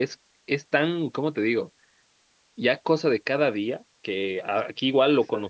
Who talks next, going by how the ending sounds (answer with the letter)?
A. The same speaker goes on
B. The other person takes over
A